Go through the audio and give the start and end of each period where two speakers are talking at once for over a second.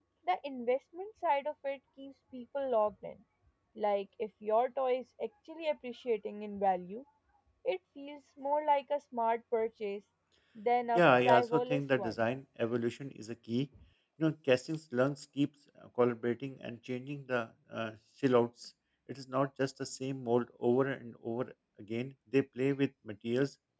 10.9-12.2

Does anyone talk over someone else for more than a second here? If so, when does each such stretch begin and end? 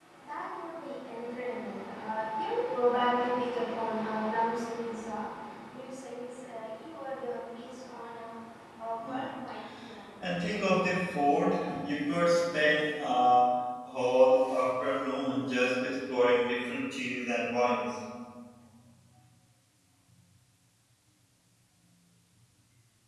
none

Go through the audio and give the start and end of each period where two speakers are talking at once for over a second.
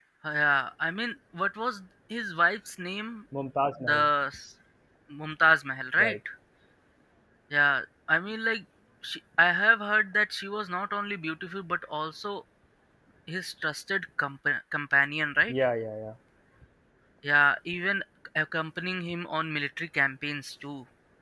none

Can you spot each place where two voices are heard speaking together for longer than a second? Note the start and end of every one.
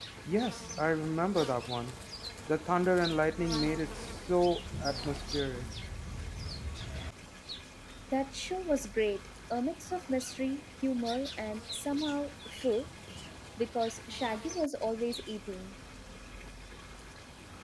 none

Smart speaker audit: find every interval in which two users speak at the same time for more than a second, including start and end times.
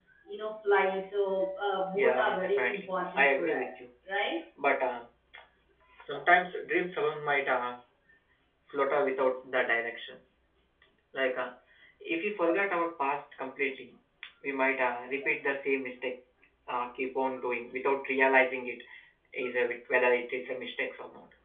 2.0-3.9

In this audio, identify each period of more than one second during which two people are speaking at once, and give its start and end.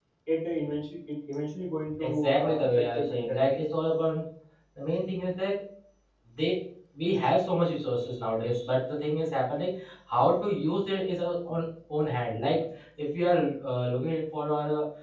2.0-3.5

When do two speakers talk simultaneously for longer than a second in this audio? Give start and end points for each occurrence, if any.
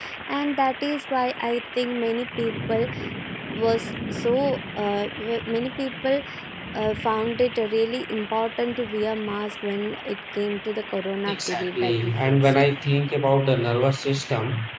11.3-12.5

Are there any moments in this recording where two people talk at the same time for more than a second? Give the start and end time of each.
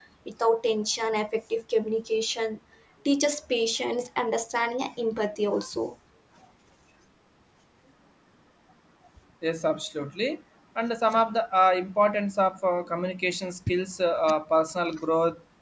none

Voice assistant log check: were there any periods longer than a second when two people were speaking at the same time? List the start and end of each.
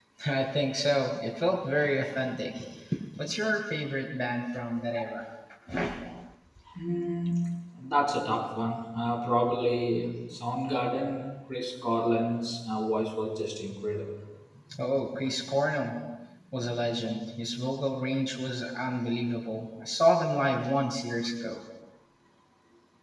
none

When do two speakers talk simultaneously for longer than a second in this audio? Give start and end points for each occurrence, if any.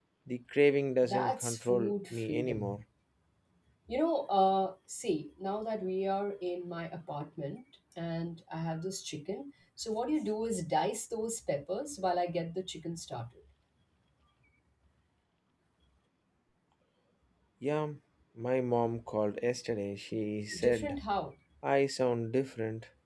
1.0-2.8

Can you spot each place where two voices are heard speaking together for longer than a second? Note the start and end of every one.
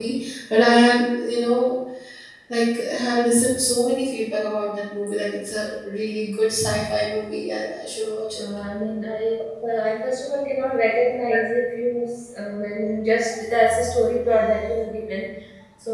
none

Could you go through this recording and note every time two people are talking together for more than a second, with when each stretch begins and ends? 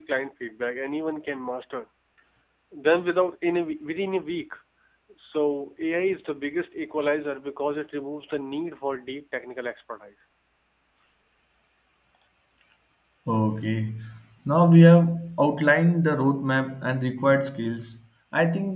none

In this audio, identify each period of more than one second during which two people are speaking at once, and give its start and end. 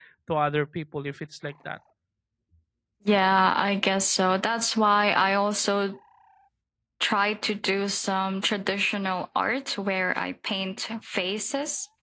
none

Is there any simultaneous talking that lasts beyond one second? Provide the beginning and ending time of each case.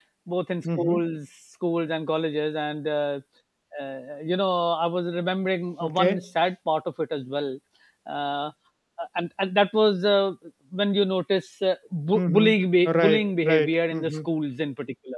12.9-14.2

